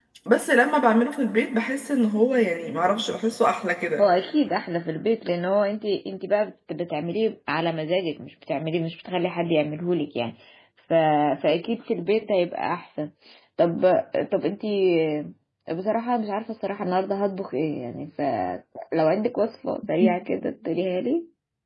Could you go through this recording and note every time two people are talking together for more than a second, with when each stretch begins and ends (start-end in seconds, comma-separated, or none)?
none